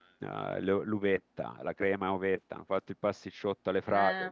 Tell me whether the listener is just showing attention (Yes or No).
Yes